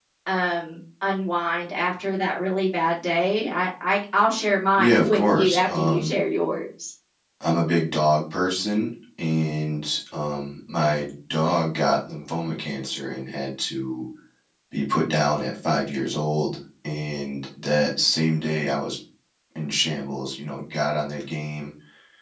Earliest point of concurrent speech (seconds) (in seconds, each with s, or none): 4.8 s